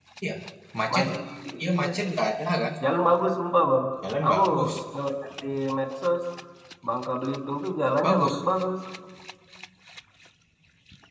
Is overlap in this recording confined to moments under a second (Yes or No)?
Yes